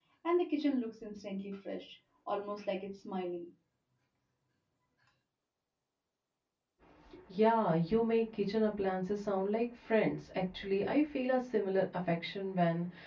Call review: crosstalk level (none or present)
none